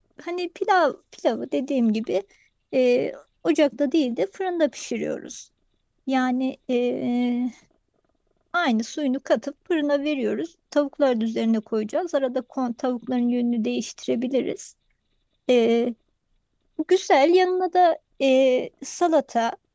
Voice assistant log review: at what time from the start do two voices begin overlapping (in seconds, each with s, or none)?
none